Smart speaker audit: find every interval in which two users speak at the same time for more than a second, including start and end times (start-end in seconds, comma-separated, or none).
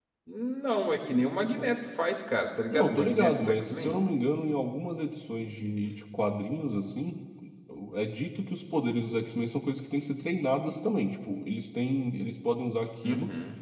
2.7-4.0